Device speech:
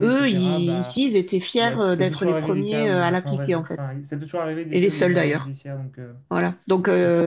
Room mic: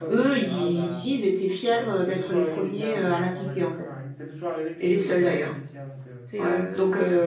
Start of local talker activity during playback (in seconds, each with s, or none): 6.2 s